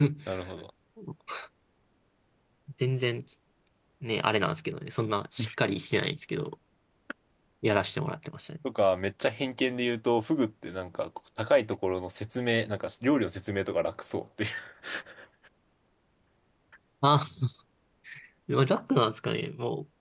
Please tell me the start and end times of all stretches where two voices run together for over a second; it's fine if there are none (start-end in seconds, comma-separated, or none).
none